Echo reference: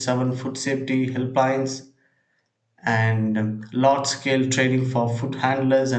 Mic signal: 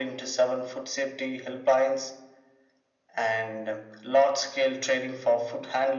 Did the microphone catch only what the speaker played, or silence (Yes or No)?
Yes